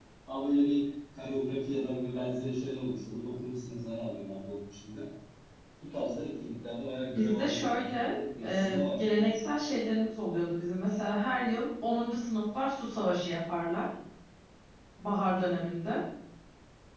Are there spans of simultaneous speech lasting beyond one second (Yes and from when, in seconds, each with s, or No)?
Yes, from 7.2 s